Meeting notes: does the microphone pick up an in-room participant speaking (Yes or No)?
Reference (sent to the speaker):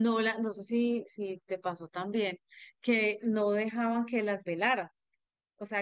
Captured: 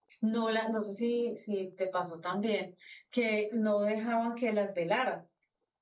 No